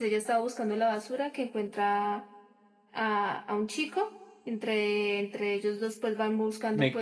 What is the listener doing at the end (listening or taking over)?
taking over